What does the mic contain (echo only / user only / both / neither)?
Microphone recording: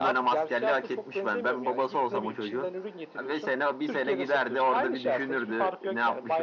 echo only